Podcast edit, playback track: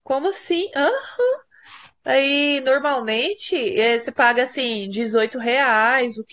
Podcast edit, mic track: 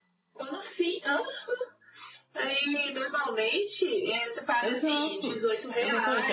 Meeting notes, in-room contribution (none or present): present